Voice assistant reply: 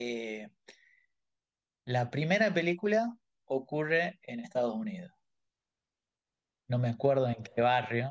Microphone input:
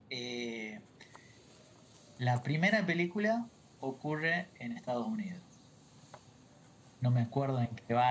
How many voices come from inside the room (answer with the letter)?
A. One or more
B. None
B